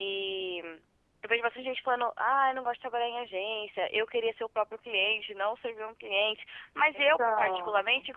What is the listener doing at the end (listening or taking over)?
listening